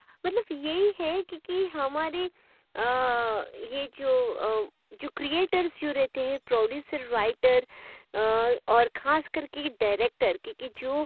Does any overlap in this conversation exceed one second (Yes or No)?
No